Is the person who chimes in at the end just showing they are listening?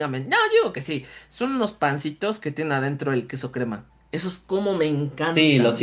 No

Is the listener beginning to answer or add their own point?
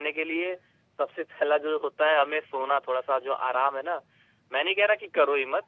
No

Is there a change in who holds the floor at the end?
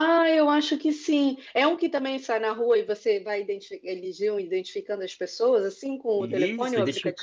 Yes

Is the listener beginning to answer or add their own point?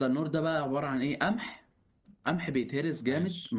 No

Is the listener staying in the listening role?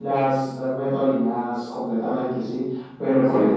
Yes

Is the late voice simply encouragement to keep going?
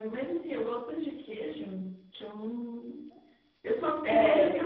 Yes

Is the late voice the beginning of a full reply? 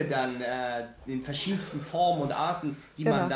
No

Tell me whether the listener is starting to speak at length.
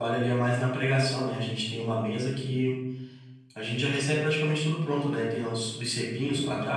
No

